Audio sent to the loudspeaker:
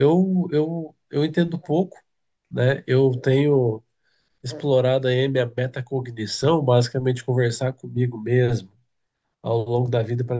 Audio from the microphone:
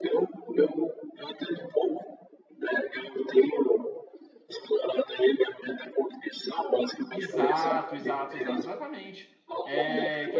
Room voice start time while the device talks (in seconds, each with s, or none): 7.1 s